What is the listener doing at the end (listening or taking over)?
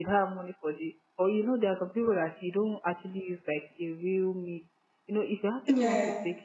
listening